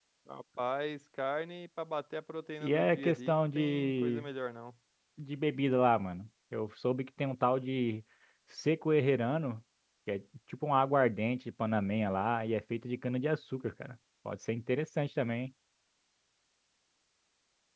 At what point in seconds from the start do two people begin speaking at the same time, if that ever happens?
2.6 s

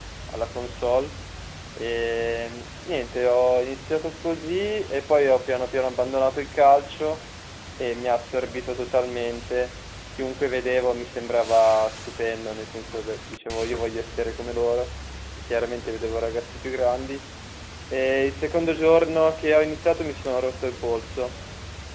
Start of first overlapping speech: none

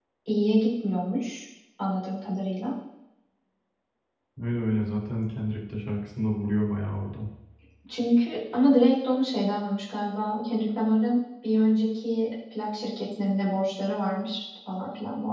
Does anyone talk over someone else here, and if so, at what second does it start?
none

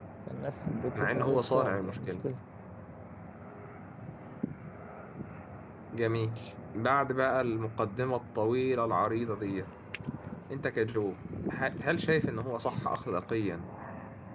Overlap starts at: 0.9 s

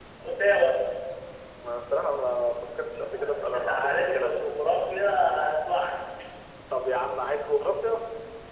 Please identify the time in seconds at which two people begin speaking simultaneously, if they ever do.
3.1 s

